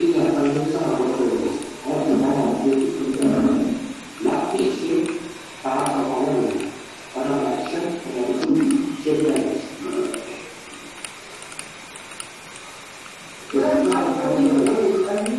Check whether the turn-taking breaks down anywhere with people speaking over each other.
Yes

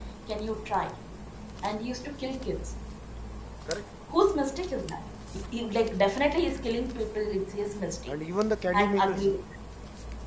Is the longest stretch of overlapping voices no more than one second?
Yes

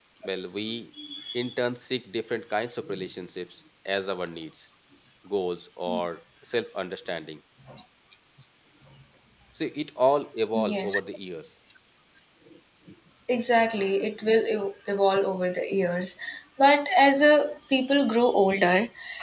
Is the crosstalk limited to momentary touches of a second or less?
Yes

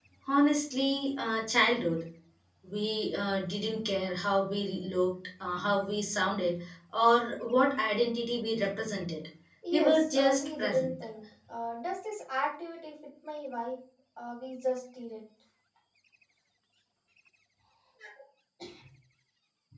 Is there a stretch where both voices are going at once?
Yes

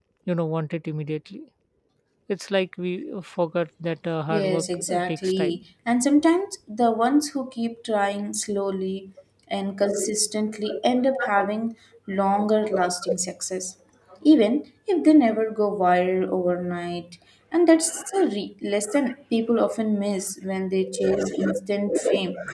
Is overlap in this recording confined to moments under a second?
No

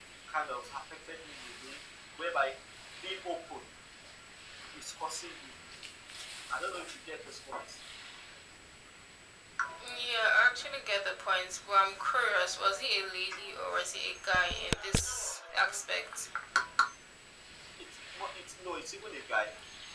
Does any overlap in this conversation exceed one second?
No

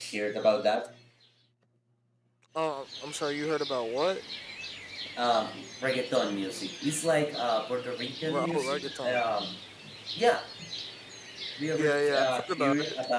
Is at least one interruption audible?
Yes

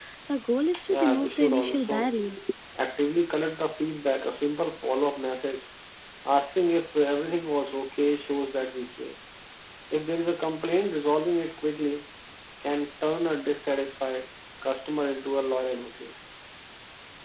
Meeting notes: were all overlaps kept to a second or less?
No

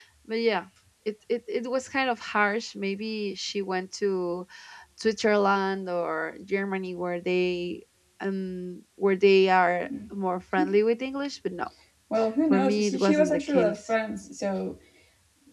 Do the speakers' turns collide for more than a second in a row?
Yes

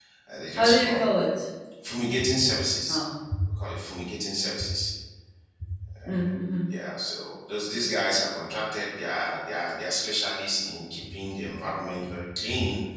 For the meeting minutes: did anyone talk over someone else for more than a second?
No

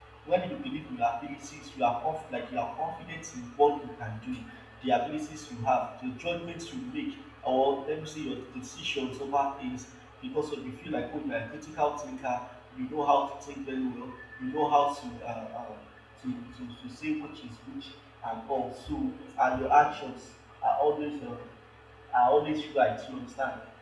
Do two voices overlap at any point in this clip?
No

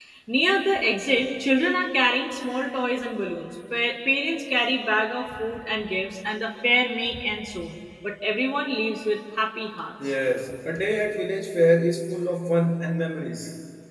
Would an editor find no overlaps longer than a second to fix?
Yes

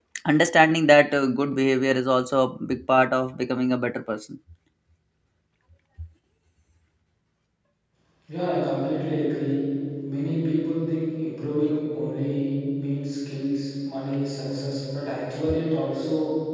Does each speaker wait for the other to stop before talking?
Yes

